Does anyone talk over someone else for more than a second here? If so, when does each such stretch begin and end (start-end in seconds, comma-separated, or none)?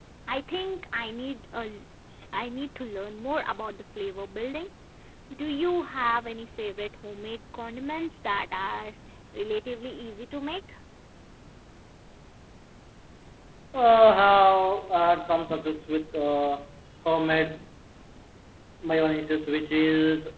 none